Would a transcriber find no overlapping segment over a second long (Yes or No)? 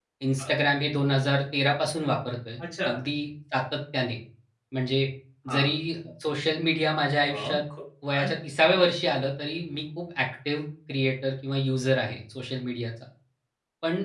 Yes